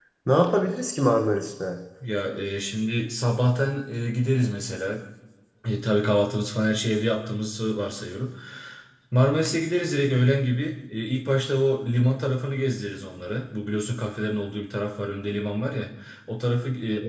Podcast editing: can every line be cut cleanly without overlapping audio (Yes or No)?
Yes